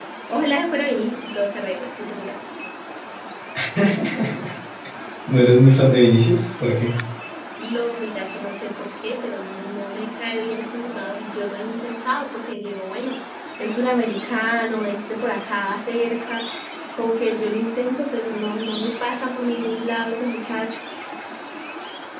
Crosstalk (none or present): none